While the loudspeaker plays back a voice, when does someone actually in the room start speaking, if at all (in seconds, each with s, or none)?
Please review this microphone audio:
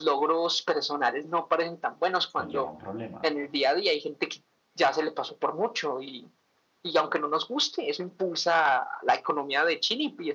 2.3 s